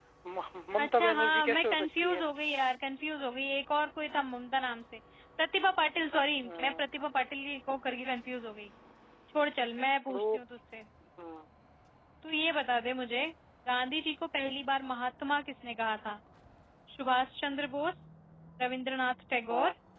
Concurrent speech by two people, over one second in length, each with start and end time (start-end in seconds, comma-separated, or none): 0.8-2.2